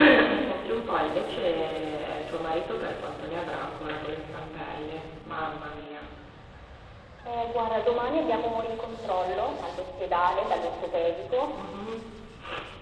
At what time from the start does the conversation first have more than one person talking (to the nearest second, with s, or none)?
none